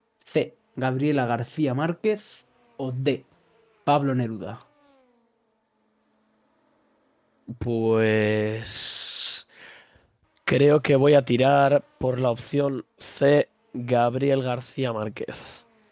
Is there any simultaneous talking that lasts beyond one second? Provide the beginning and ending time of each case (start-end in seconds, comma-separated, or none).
none